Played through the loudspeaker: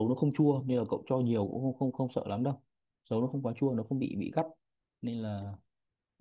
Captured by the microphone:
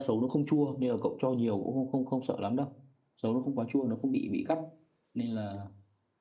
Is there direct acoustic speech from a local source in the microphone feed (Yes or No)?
No